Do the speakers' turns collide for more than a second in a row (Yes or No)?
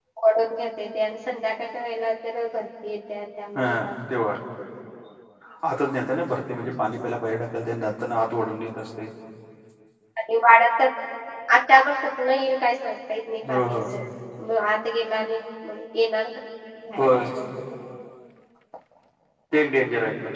No